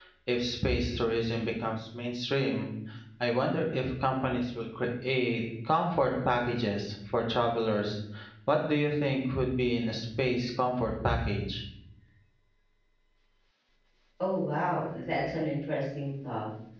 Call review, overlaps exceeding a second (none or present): none